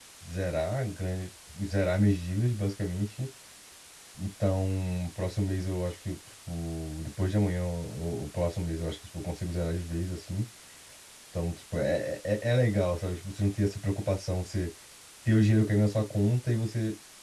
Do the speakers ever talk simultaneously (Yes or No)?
No